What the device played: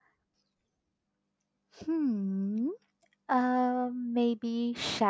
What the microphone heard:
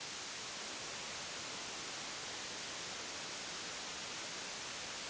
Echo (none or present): none